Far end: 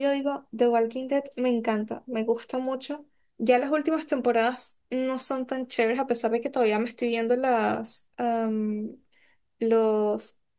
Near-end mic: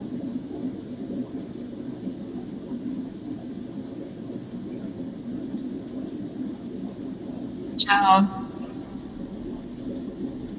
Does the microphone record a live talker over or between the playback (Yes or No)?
Yes